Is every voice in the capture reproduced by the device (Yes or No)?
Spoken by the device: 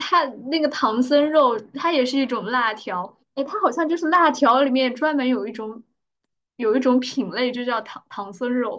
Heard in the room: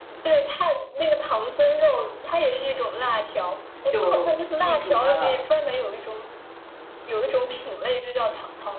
No